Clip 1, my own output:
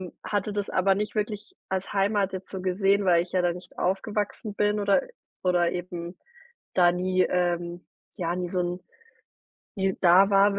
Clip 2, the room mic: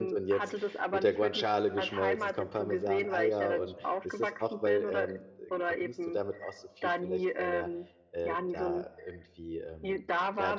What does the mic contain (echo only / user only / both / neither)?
both